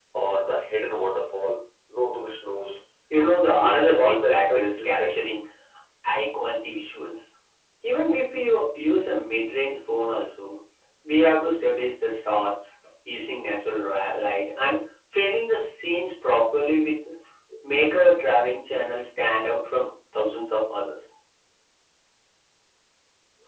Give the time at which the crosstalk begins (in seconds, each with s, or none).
3.4 s